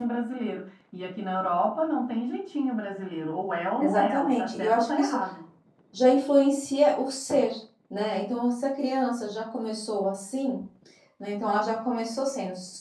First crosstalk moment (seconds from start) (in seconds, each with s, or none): 3.8 s